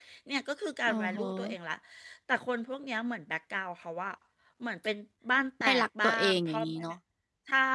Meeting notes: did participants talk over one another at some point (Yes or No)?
Yes